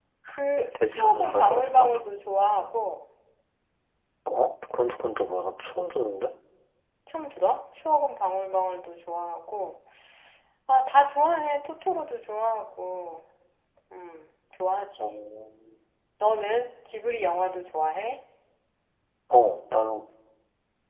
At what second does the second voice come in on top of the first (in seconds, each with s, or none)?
0.6 s